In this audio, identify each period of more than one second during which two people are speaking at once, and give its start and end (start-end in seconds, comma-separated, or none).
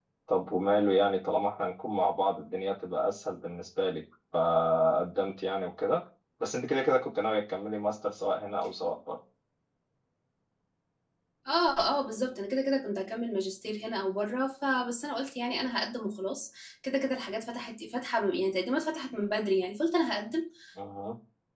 none